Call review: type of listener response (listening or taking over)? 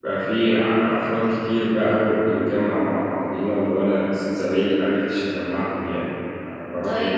taking over